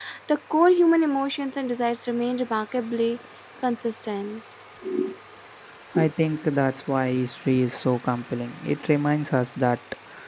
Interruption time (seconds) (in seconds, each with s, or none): none